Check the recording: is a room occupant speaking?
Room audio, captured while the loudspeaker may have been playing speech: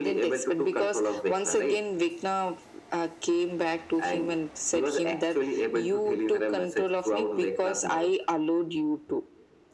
No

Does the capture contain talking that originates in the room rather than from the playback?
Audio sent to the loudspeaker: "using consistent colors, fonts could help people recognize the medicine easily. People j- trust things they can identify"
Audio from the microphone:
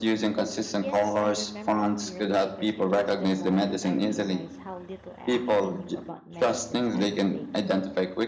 Yes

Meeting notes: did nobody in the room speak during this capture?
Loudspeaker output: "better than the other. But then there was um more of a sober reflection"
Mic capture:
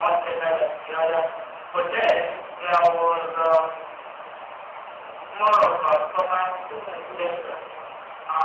No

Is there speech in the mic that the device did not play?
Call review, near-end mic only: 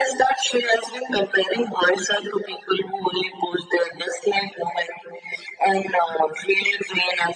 No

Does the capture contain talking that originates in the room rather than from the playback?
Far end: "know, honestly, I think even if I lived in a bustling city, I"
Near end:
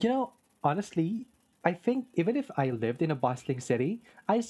No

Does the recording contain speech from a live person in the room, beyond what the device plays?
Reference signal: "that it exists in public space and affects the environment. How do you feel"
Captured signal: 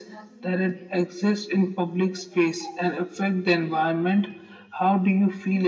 No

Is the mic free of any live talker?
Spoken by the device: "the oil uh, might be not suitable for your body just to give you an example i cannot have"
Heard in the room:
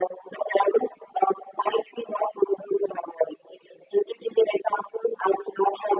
Yes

